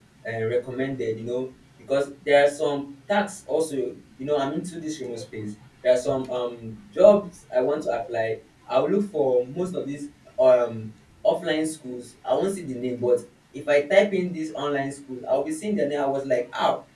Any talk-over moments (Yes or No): No